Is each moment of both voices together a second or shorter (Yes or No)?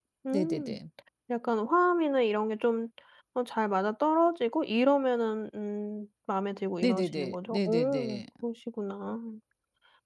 No